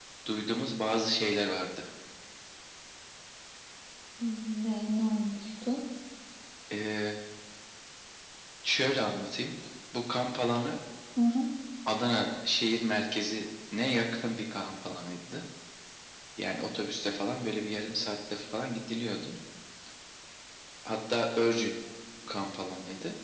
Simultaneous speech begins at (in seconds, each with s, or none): none